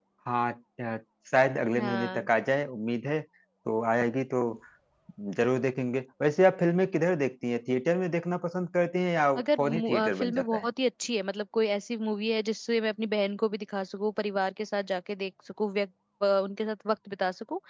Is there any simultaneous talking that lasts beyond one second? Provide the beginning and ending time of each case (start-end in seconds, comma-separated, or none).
9.4-10.7